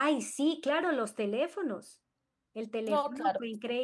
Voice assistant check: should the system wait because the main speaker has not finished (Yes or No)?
Yes